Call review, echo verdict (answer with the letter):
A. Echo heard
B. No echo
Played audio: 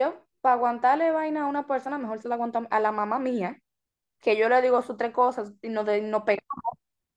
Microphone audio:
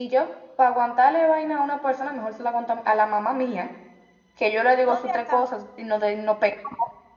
A